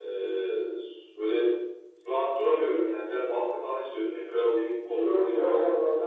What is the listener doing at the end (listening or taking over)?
taking over